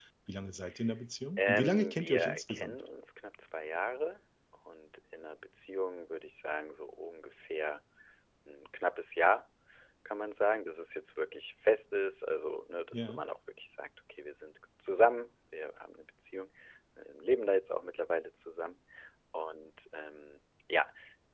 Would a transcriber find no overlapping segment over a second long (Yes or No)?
No